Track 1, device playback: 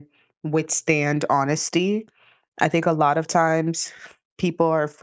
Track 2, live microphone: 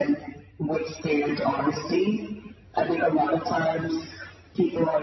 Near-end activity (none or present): none